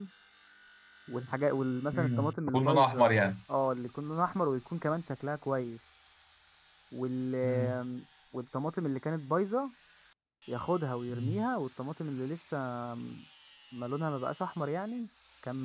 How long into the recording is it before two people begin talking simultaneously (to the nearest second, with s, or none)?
2 s